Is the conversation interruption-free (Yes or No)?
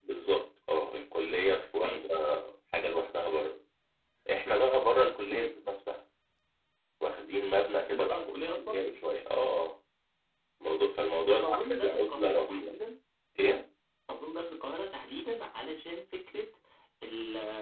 No